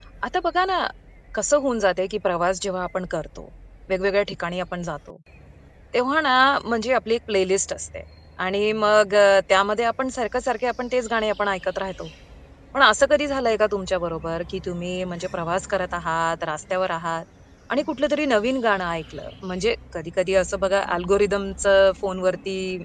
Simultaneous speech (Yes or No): No